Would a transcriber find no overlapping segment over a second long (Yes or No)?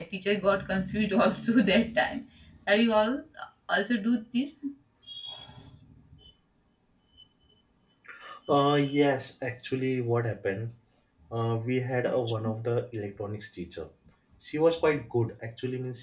Yes